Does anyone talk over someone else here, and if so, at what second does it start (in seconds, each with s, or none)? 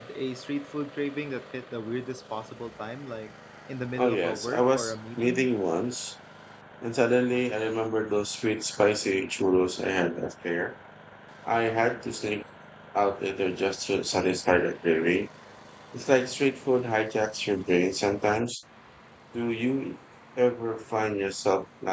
4.0 s